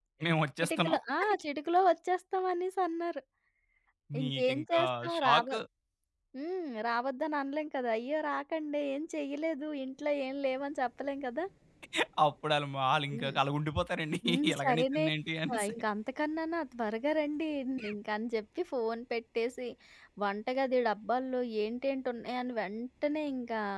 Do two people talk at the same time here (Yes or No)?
Yes